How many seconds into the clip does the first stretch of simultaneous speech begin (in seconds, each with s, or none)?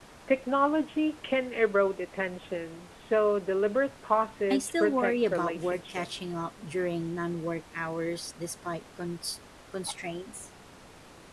4.5 s